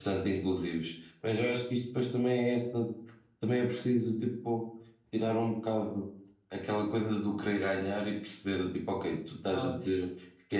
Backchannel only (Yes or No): Yes